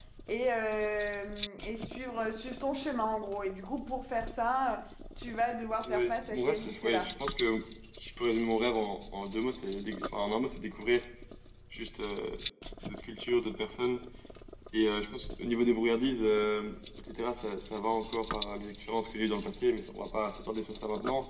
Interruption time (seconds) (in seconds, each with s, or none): 5.8 s